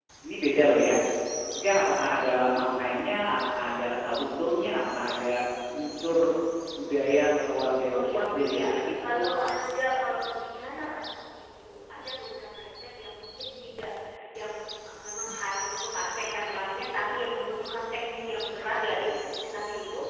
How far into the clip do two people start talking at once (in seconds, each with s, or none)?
7.9 s